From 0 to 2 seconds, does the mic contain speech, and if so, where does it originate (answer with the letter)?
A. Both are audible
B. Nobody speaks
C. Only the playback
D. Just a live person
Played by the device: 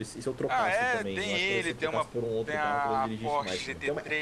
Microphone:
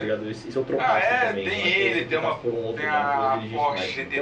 C